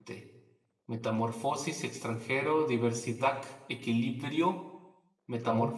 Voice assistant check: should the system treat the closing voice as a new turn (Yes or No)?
No